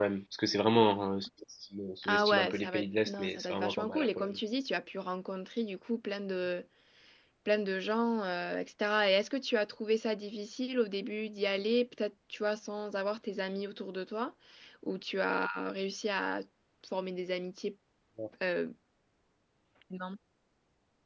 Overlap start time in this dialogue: 2.0 s

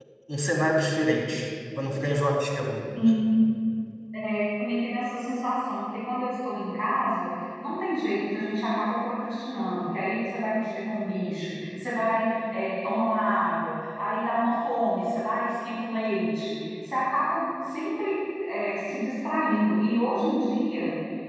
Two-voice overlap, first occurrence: none

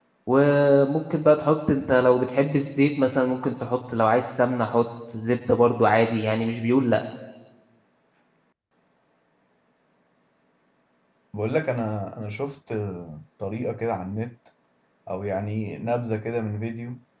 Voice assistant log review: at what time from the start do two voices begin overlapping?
none

